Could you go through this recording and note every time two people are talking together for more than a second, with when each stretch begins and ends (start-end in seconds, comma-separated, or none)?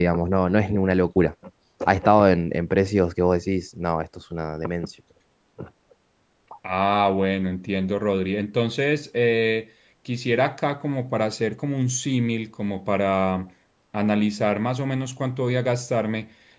none